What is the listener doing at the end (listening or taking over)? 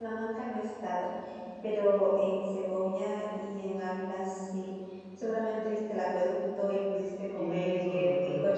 taking over